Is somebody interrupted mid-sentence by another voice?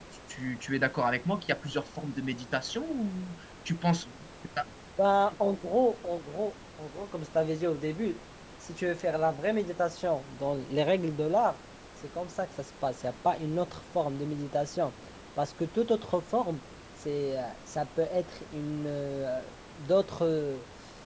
No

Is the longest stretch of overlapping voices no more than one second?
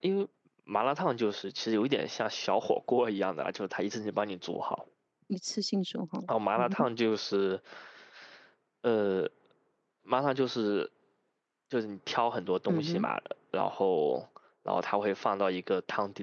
Yes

